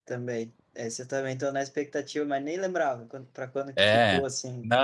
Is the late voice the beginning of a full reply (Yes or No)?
Yes